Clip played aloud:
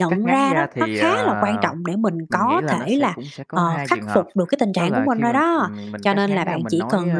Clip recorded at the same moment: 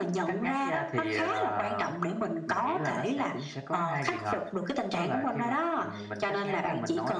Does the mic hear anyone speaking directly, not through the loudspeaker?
No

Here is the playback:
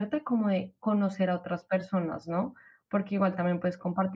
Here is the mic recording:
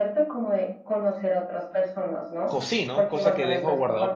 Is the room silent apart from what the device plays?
No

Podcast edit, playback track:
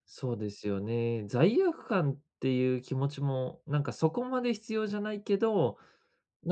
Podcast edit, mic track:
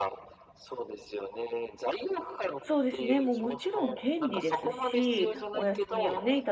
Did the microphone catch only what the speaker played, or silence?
No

